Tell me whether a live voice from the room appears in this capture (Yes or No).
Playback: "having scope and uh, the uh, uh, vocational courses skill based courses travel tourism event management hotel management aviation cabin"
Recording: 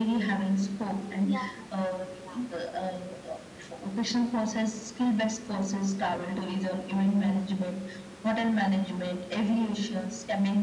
Yes